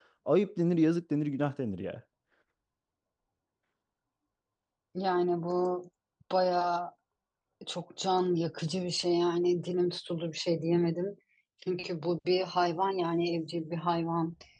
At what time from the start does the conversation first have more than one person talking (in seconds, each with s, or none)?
none